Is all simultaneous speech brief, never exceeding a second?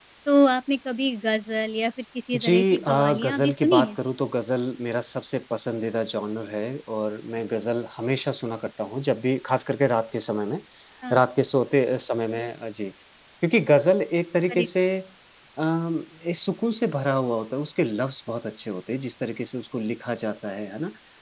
No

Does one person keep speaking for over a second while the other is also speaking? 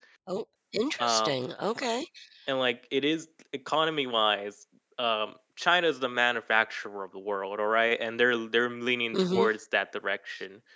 No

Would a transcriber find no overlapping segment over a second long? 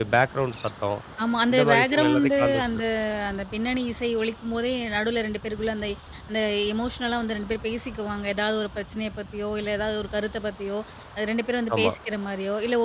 No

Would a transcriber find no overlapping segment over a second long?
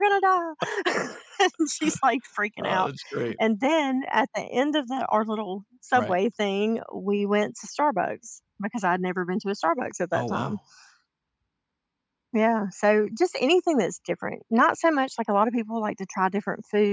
Yes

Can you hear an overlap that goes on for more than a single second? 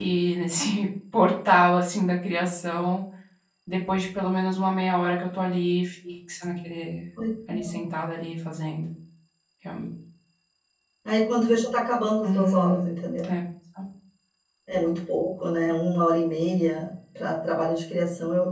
No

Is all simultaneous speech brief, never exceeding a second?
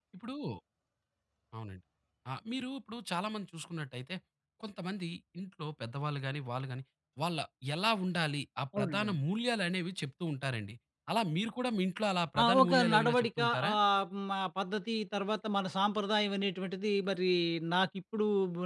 No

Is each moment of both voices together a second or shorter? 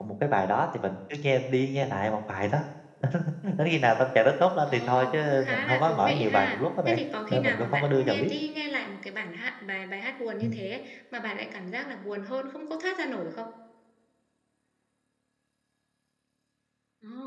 No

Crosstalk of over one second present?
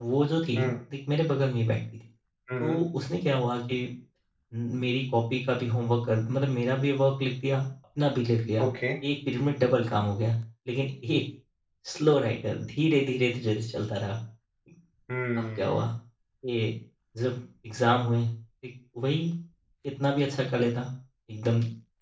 No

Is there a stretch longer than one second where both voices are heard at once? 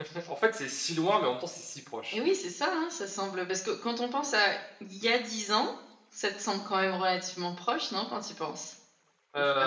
No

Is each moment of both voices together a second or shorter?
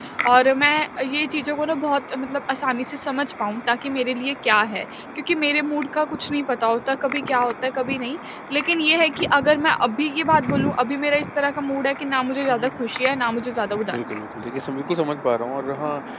Yes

